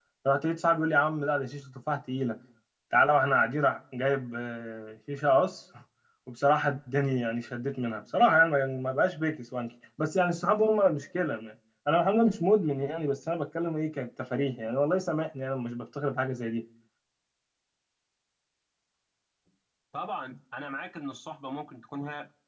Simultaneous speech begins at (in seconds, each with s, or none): none